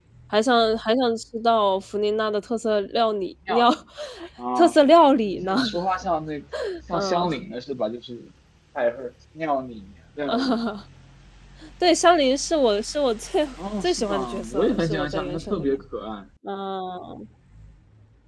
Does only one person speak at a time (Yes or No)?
No